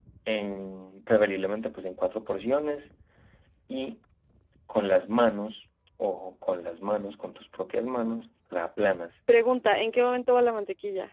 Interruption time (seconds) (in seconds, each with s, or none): none